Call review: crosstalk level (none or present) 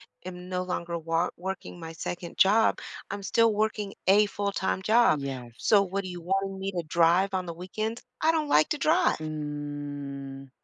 none